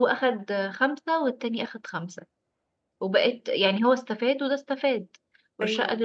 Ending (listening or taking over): listening